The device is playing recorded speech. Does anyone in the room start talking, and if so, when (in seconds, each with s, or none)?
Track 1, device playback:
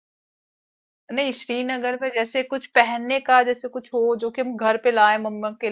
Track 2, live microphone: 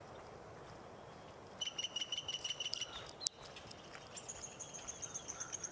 none